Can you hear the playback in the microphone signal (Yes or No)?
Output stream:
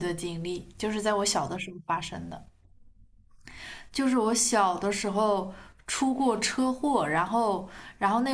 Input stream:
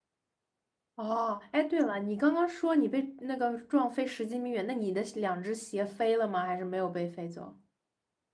No